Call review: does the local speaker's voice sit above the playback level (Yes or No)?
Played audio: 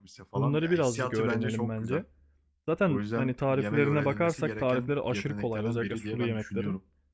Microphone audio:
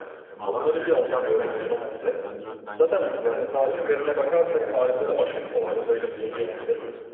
No